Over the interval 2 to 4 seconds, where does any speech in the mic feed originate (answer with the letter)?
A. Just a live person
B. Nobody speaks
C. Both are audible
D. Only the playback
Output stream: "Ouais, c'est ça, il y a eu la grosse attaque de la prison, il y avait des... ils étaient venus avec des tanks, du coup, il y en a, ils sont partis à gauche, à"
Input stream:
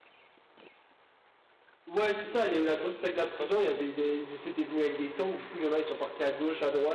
C